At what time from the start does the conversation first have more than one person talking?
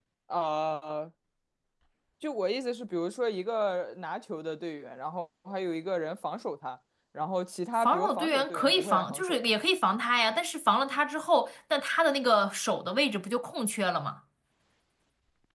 8 s

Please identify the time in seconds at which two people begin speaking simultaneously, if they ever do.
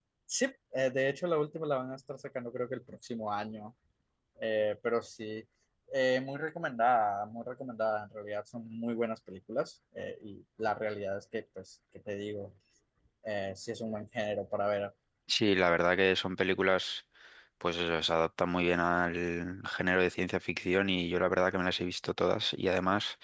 none

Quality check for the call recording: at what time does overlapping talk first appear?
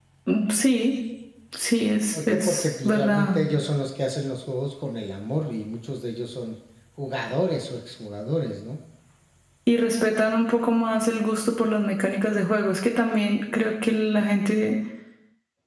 2 s

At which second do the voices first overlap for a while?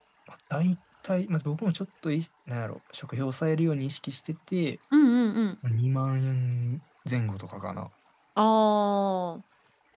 none

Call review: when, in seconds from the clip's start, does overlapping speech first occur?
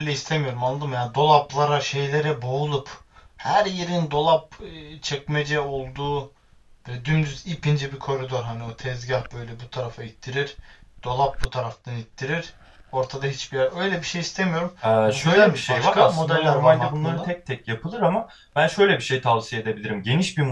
15 s

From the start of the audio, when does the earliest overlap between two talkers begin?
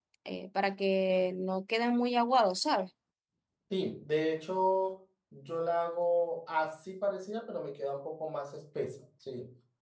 none

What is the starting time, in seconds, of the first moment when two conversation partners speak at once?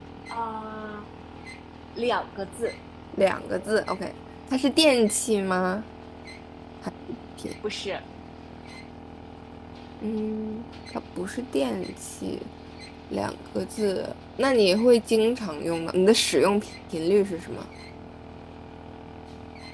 none

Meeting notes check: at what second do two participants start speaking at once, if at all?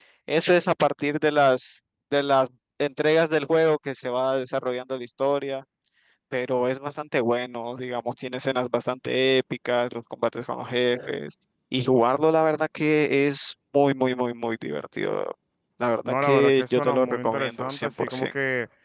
16 s

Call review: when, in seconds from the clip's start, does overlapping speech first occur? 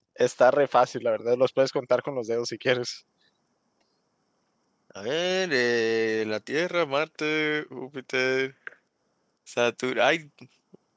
none

